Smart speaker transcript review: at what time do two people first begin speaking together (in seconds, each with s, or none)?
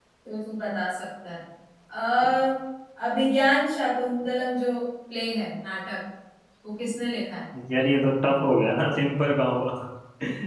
none